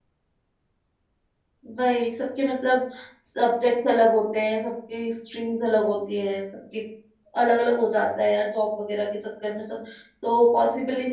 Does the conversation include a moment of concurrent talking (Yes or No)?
No